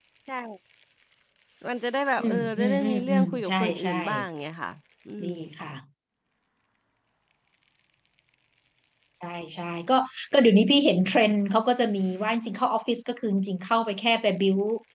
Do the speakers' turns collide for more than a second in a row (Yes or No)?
Yes